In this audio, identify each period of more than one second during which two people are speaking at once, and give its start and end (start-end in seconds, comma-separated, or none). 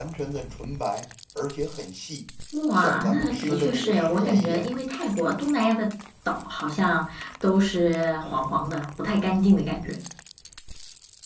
2.7-4.7